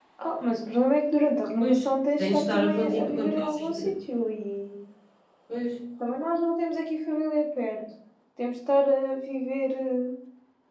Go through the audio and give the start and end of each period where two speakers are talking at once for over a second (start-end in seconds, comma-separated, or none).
2.2-3.7